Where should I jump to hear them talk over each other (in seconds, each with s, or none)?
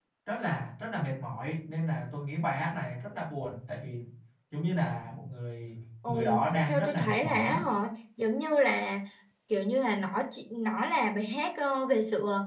6.0 s